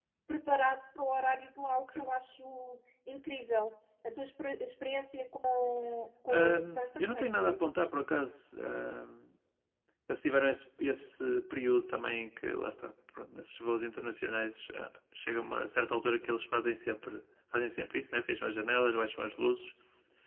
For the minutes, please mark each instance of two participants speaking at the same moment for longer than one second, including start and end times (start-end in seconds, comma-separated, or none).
6.3-7.6